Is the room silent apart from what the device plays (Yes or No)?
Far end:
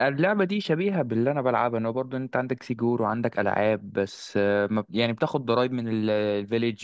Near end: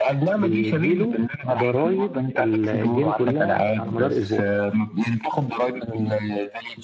No